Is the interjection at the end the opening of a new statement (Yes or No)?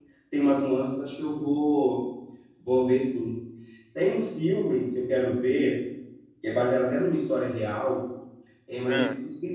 No